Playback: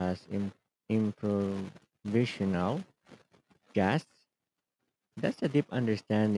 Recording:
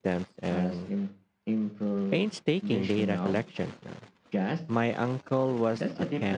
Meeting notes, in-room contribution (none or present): present